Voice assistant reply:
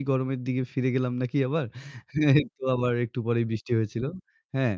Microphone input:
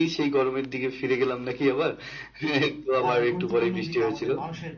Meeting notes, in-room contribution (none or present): present